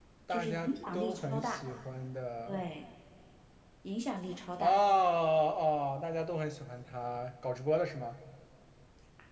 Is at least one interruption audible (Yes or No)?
Yes